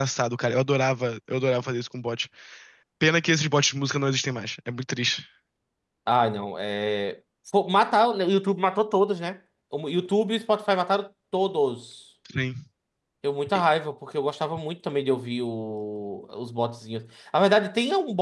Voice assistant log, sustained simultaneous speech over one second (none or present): none